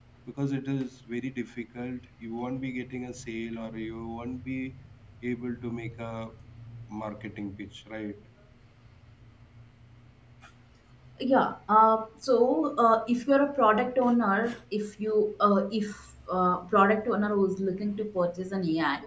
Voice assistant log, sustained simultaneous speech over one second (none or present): none